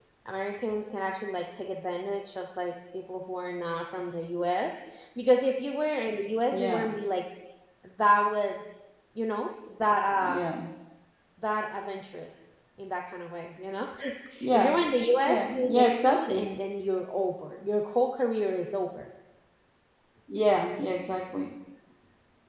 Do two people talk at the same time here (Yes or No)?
Yes